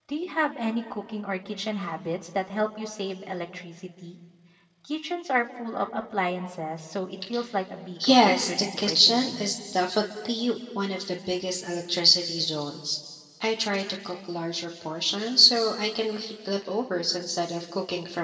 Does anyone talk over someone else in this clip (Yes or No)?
Yes